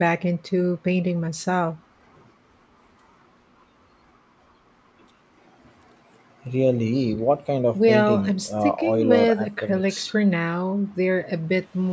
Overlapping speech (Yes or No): Yes